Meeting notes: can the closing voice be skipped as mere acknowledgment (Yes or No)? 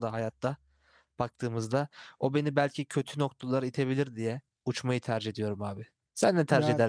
No